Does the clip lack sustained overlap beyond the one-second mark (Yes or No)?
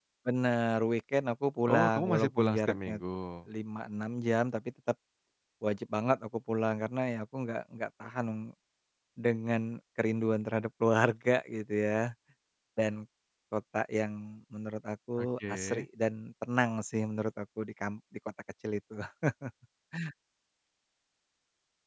No